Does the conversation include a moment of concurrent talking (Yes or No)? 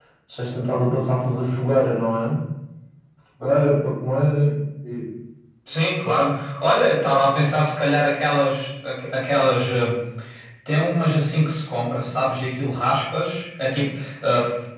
No